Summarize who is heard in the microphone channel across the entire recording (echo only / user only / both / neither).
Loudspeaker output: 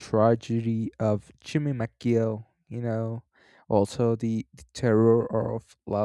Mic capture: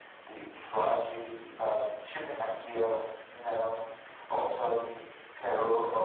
echo only